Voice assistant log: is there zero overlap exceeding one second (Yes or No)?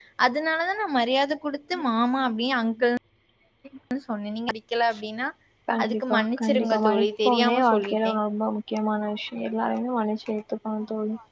No